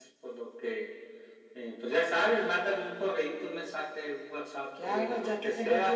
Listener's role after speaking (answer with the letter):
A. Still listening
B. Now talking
B